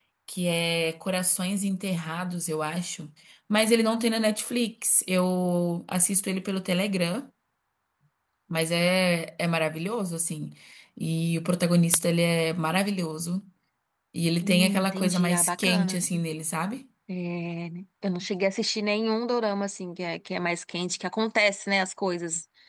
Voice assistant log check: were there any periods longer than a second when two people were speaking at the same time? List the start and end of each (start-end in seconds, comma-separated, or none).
14.4-16.1